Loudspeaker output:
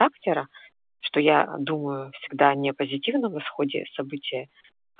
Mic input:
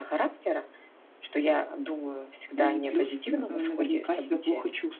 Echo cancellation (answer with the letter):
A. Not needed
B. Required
B